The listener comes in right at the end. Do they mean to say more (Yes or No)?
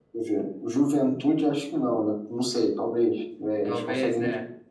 No